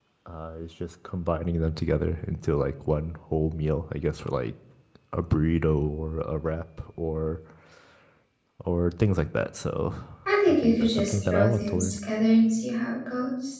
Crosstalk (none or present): present